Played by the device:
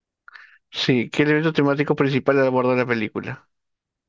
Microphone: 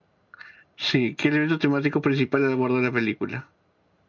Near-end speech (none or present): none